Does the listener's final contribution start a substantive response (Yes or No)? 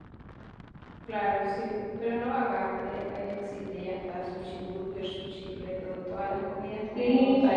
Yes